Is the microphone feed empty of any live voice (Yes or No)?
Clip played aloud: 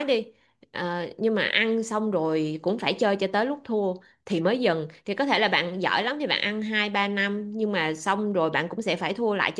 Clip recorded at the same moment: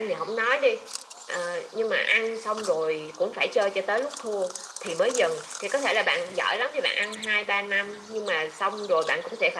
Yes